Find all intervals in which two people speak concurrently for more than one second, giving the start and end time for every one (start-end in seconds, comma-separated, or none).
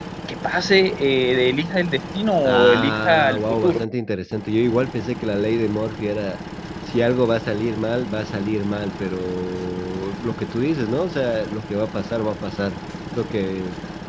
2.4-3.8